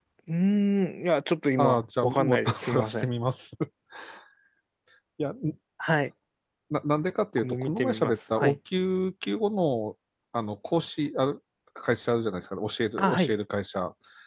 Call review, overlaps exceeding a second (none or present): present